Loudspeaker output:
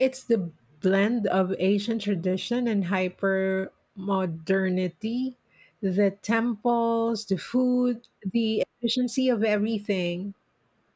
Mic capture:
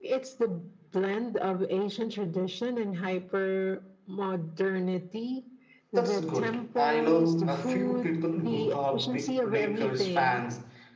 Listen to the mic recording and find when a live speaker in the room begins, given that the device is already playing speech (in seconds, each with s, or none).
5.9 s